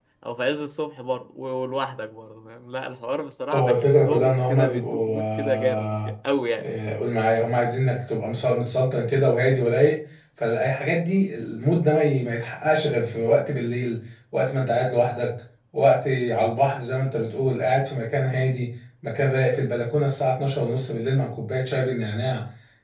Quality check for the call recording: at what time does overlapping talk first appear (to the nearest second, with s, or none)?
4 s